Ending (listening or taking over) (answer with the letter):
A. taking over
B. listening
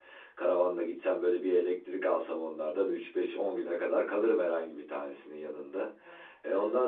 B